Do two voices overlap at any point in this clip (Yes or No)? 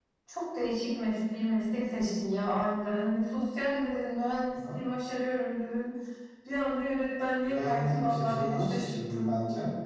Yes